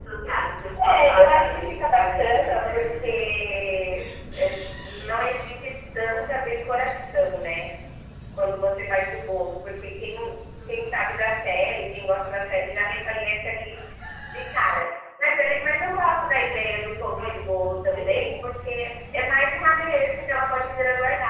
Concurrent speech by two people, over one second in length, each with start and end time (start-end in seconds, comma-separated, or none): 0.8-3.2